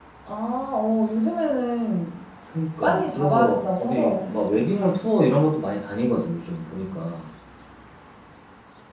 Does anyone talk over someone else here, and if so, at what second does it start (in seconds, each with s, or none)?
2.8 s